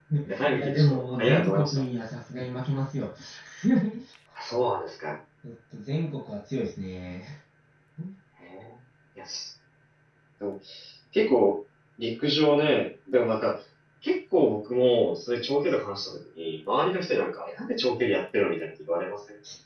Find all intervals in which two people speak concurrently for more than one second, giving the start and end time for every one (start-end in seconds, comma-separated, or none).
0.5-1.8